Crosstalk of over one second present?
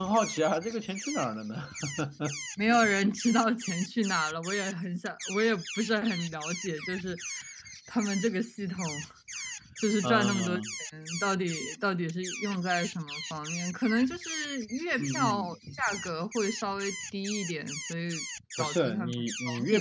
Yes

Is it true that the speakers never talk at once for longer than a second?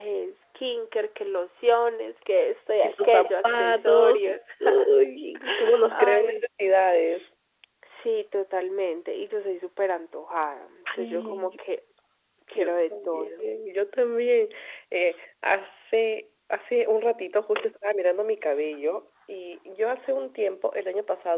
No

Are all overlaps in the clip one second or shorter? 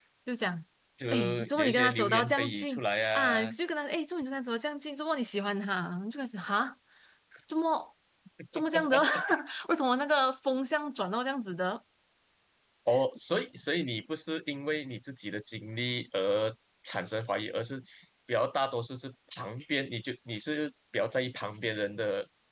No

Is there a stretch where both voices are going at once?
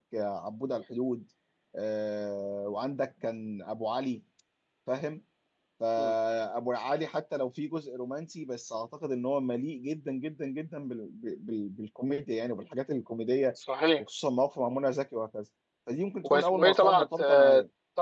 Yes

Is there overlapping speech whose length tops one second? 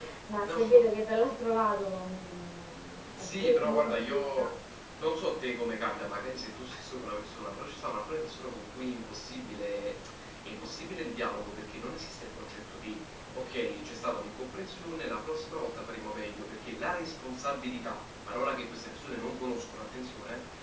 Yes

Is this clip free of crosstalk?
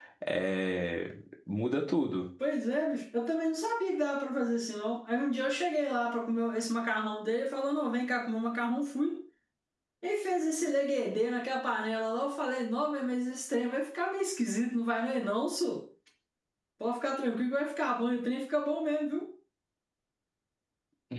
Yes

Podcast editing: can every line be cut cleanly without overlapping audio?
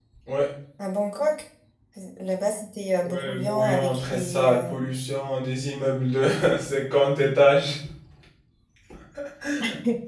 No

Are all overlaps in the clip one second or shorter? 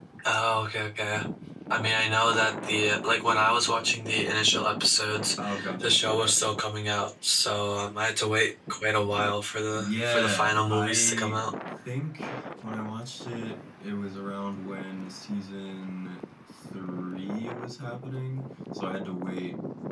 No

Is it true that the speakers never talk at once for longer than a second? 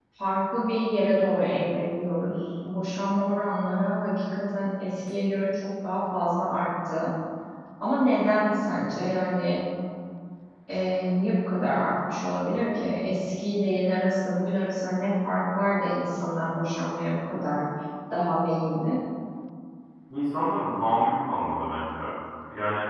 Yes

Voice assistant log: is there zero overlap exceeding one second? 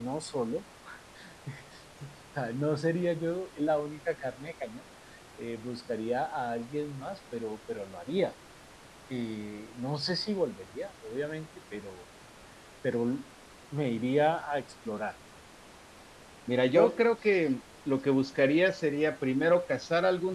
Yes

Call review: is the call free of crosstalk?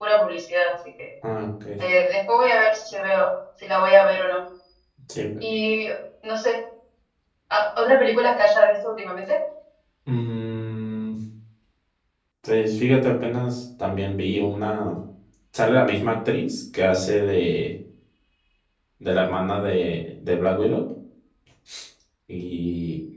Yes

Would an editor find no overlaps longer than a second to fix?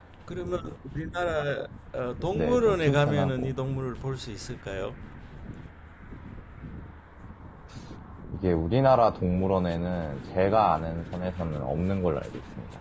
No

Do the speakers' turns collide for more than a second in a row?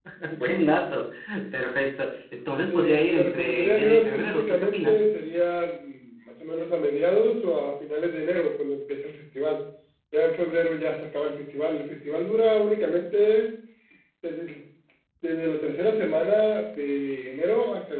Yes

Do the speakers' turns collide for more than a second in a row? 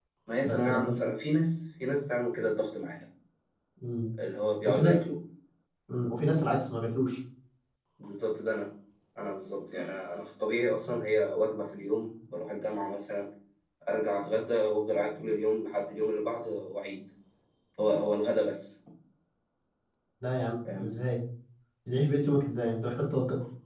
No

